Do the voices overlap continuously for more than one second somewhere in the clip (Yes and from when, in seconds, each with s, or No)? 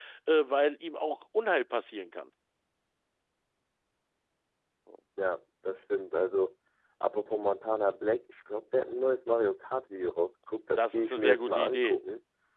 Yes, from 10.8 s